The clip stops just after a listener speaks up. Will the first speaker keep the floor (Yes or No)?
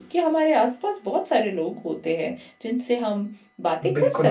No